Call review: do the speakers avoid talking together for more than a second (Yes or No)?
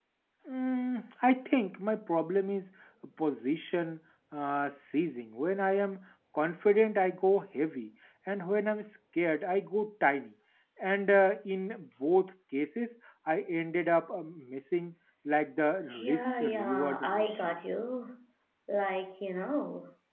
No